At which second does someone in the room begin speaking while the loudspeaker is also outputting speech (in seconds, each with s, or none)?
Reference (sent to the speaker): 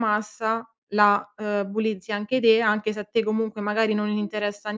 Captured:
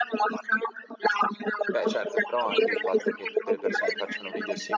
1.7 s